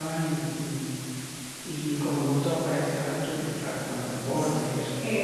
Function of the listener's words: taking over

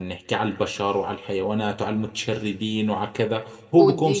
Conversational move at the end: taking over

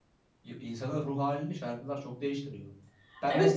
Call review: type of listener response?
taking over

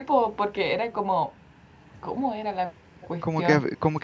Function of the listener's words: taking over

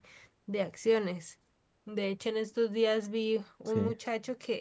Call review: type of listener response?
listening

